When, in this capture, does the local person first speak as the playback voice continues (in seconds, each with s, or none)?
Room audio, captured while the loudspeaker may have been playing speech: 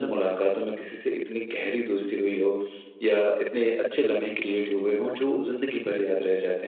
none